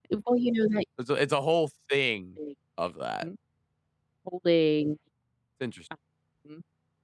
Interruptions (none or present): none